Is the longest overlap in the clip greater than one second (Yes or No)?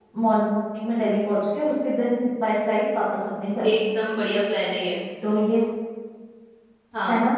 No